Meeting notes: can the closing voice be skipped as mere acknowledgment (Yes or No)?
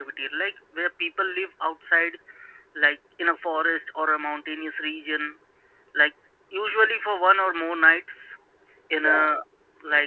Yes